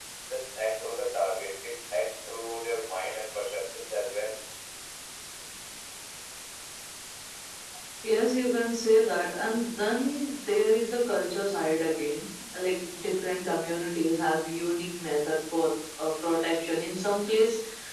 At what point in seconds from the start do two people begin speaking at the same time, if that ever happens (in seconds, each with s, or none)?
none